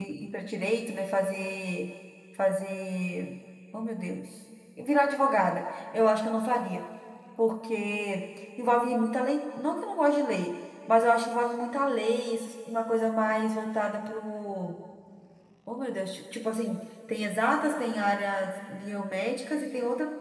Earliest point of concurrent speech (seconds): none

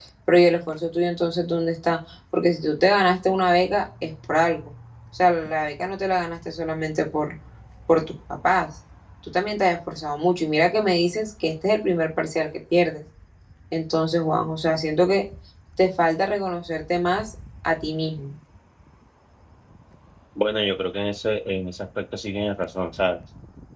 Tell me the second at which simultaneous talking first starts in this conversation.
none

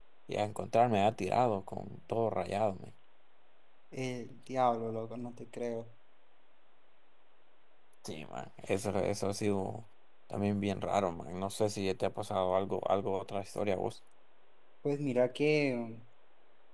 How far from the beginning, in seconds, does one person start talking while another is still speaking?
none

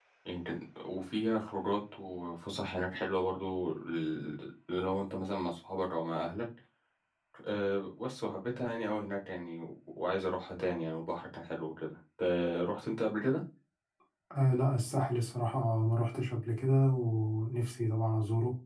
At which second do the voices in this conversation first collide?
none

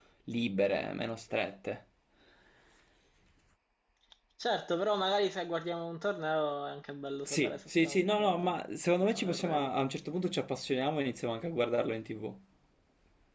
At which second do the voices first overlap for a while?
7.2 s

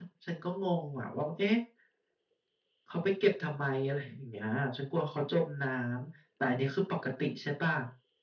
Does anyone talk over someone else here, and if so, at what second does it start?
none

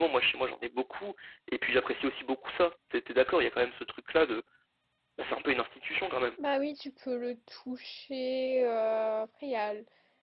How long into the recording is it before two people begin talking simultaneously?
none

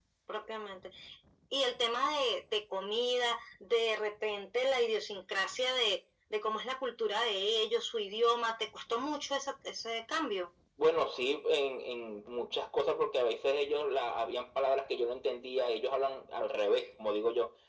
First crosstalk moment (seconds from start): none

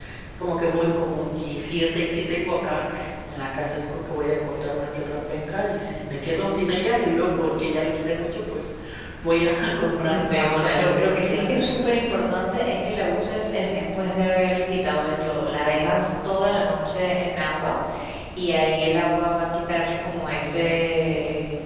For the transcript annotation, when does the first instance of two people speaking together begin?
10.1 s

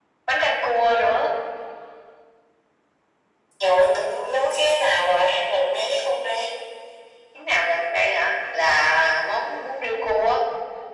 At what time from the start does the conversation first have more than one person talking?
none

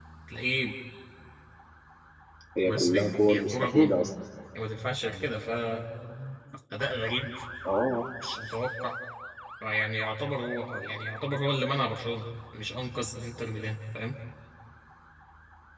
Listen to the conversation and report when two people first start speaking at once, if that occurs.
2.6 s

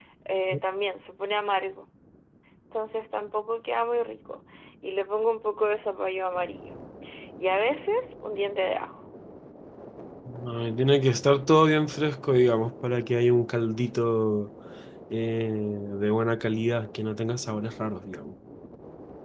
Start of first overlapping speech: none

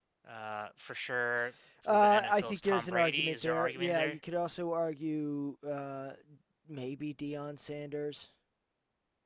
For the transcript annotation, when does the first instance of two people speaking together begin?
1.8 s

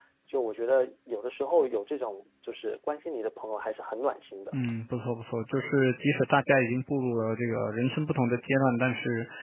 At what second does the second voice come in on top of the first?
none

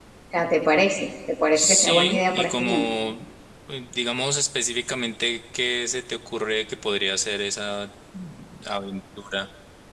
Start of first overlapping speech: 1.6 s

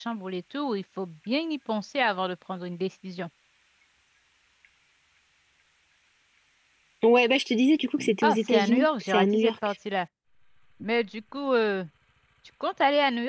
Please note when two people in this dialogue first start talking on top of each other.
8.2 s

